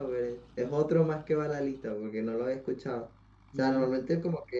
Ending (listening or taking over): listening